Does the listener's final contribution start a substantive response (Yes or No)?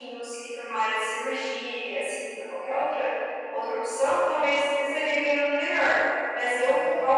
No